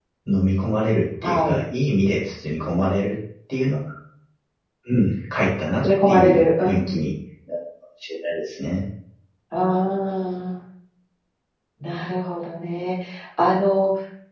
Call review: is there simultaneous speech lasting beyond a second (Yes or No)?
Yes